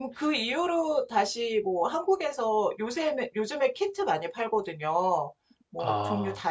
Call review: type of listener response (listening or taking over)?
listening